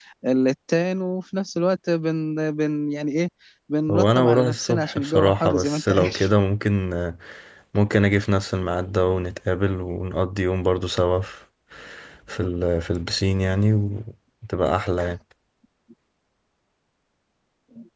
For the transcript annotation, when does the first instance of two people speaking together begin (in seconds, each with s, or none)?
3.9 s